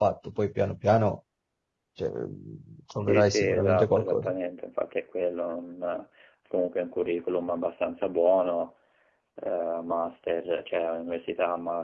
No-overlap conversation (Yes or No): No